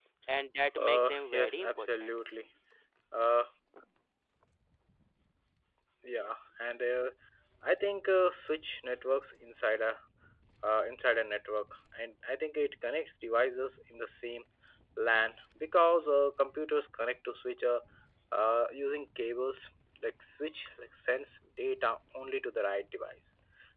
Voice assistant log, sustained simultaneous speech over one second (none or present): present